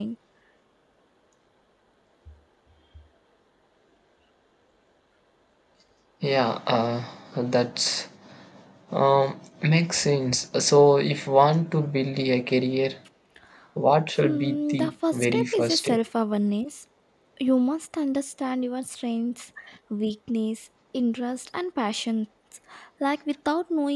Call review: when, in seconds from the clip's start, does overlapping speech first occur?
14.2 s

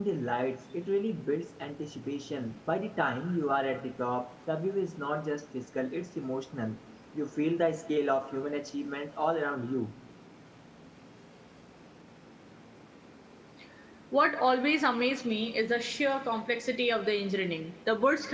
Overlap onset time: none

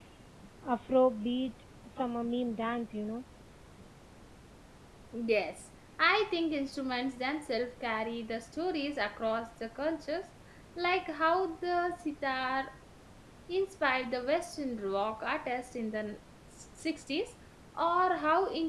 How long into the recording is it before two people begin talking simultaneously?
none

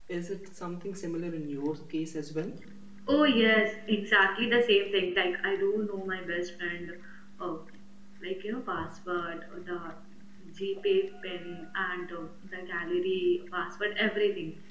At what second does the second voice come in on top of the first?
none

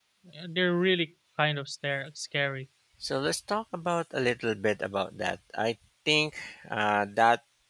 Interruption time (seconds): none

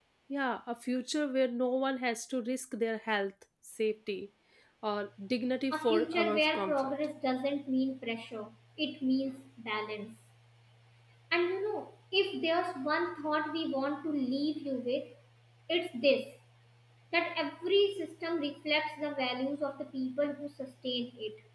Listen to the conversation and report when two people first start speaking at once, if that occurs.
5.7 s

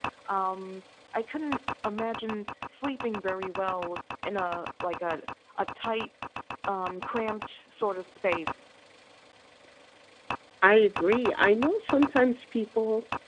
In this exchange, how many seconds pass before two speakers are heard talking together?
none

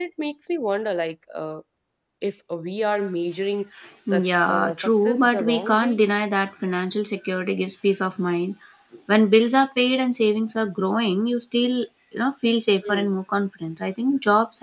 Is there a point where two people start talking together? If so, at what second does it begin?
4.1 s

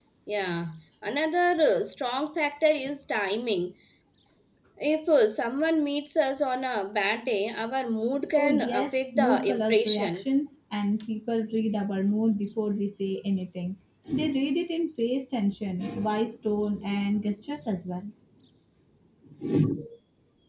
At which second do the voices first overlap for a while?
8.3 s

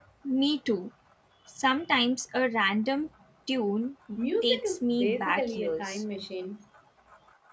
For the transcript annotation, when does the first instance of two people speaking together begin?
4.4 s

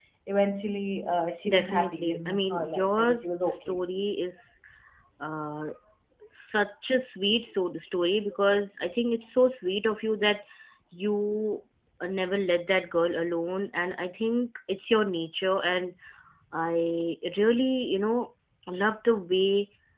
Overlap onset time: 1.4 s

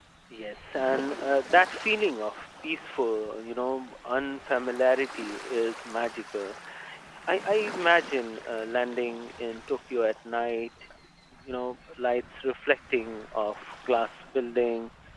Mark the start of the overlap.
none

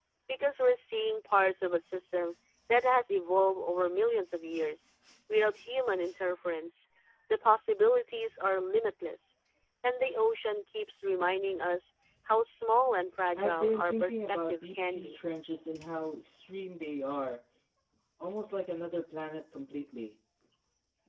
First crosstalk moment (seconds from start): 13.4 s

